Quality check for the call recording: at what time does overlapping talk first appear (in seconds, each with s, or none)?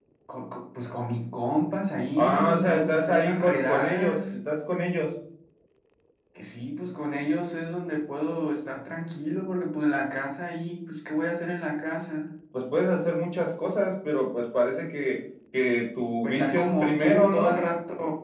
2.2 s